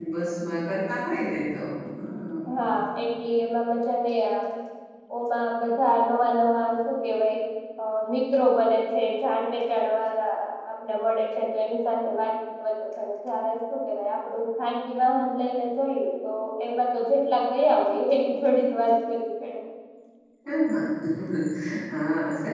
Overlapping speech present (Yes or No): No